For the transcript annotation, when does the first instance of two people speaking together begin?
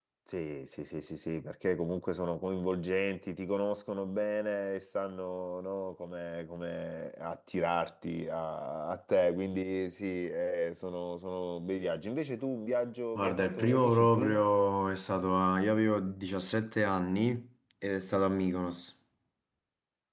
13.2 s

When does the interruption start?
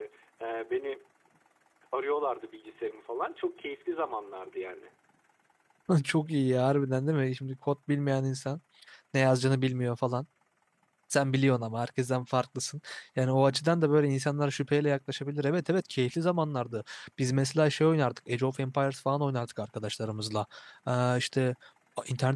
none

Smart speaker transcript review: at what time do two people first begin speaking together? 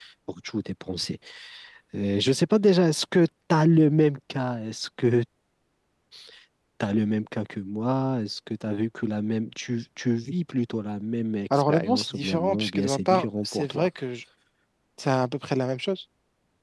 11.5 s

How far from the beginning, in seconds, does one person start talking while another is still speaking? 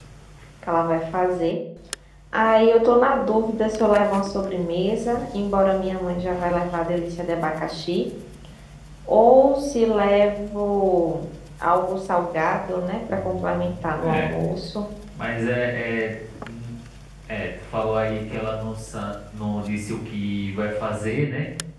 13.1 s

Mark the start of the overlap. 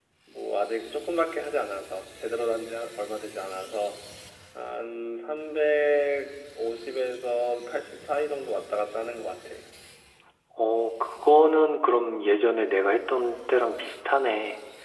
none

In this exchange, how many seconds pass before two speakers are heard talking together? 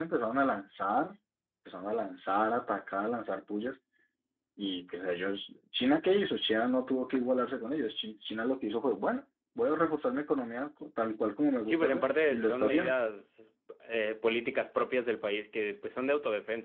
11.7 s

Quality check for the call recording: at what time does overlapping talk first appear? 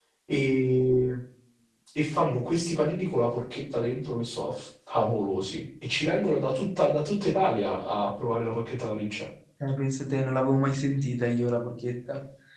none

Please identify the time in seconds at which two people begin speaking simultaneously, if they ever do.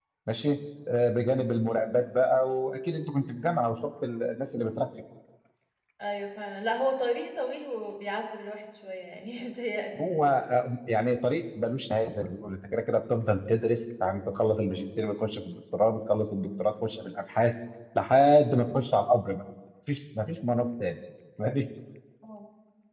none

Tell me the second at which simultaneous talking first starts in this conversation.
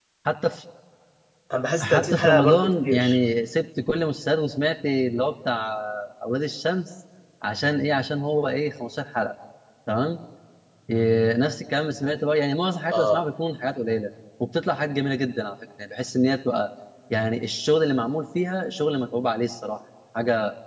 1.8 s

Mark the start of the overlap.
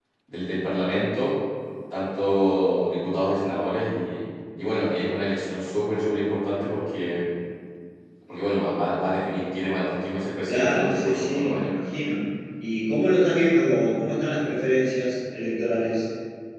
10.5 s

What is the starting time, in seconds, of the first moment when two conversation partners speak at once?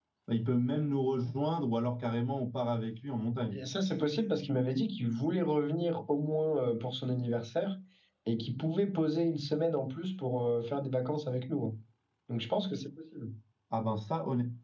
none

